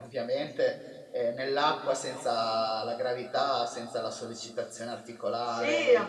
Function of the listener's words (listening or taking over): taking over